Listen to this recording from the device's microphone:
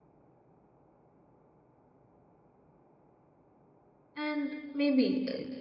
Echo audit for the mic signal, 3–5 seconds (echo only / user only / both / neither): user only